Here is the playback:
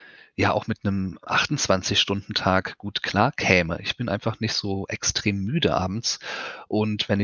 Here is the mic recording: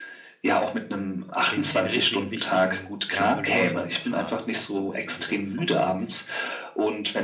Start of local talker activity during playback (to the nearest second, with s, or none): 2 s